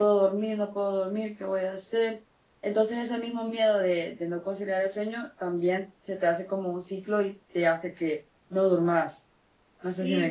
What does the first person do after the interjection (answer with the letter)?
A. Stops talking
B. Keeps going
A